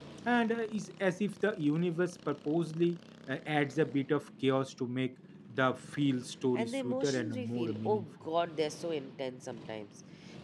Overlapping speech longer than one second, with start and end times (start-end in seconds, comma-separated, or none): 6.6-8.0